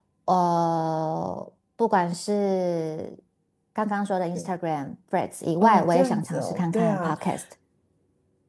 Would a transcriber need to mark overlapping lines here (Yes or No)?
Yes